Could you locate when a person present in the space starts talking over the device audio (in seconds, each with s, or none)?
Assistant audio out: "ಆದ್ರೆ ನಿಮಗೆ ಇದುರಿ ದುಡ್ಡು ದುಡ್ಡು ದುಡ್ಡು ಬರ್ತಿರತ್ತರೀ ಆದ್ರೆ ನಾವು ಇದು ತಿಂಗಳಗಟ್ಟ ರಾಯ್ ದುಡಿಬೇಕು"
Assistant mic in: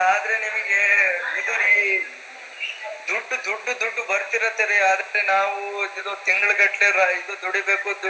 none